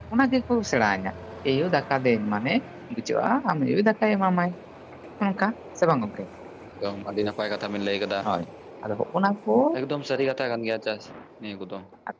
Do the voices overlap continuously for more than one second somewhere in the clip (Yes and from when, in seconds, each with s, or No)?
No